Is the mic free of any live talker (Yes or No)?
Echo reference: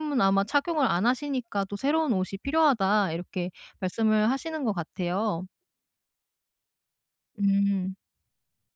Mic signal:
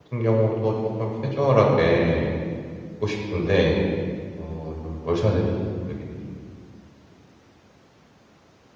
No